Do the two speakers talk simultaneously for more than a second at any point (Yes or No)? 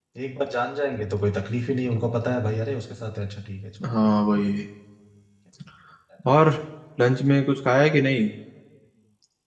No